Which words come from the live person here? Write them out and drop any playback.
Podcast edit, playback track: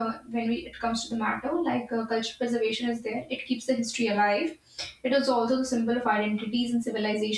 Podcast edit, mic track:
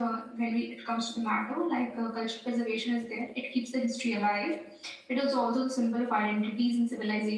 none

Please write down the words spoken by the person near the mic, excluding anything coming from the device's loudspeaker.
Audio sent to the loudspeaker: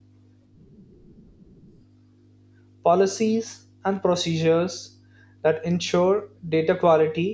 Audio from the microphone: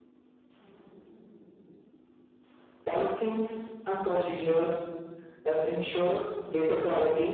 none

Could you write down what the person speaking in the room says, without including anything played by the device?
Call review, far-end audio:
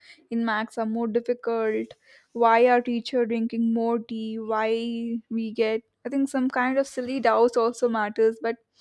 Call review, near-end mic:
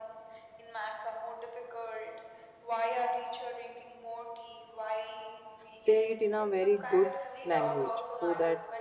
say it in a very good language so that

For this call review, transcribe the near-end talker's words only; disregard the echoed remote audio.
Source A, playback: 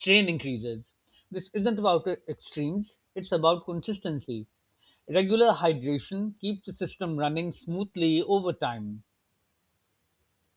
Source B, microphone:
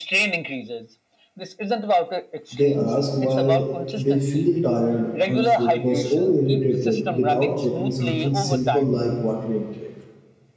They ask why they feel tired, unfocused, or irritated without checking something simple like water intake.

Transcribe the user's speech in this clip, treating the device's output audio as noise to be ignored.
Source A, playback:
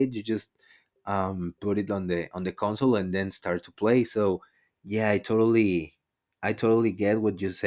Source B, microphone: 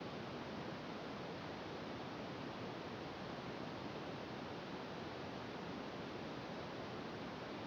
none

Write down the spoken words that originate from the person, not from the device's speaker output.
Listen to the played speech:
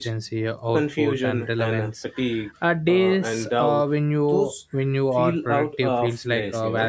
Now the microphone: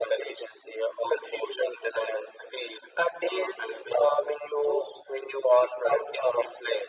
none

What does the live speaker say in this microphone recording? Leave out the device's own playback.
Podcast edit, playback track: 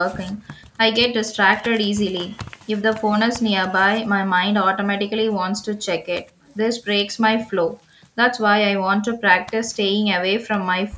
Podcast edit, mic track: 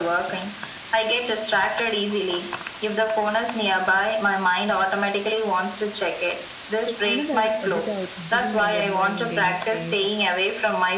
to another uh, without giving our mind any space.

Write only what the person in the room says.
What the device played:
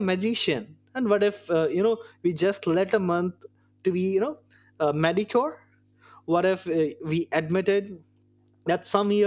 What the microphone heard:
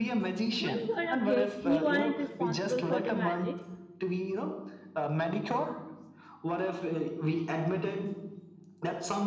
When you are a kid, you aren't responsible for the magic,

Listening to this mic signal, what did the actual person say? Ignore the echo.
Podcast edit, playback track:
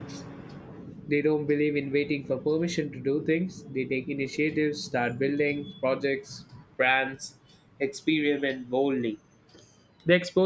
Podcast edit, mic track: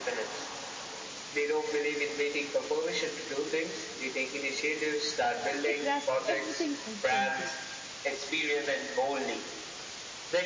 They grasp everything instantly.

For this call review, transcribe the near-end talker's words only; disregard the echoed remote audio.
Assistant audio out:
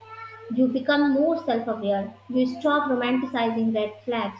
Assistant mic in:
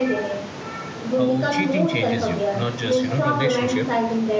how cheating changes you, not just you know relationship,

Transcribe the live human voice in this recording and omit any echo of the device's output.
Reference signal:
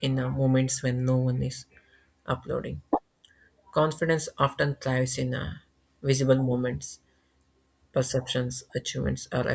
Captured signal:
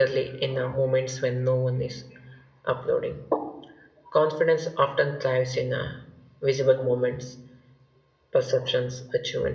none

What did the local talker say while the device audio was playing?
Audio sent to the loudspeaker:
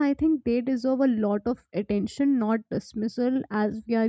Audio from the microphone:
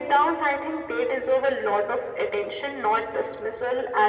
none

